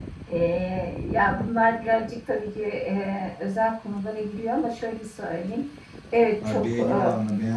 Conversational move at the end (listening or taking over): taking over